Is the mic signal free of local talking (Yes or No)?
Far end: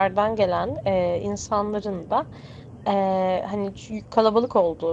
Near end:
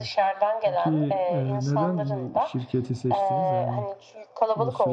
No